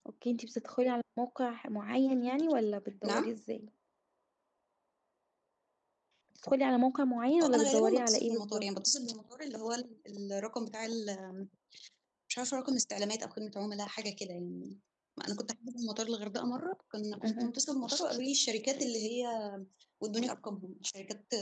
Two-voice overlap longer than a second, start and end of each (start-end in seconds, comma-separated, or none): 7.4-8.7